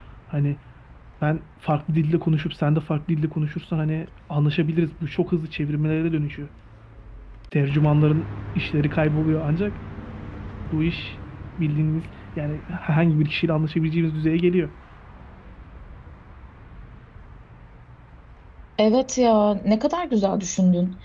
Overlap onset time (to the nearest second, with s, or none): none